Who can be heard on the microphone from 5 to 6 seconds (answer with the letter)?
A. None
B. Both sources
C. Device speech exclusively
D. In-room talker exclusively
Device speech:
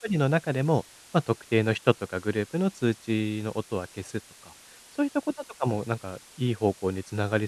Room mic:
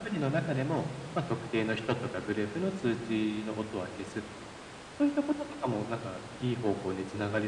C